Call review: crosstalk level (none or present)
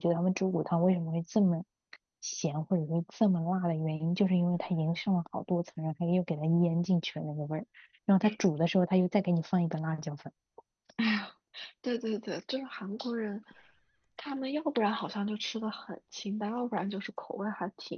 none